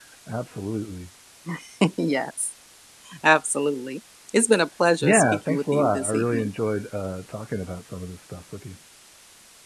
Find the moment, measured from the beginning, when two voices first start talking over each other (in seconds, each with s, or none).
5.0 s